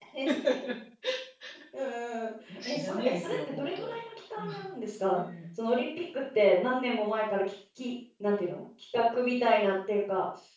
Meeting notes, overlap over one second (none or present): present